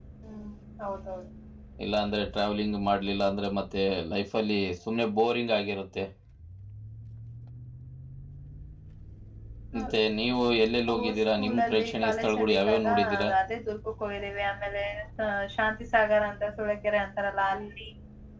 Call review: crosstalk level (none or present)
present